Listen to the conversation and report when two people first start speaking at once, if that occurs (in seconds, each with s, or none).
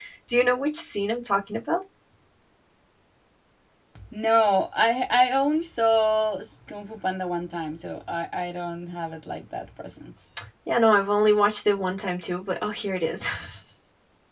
none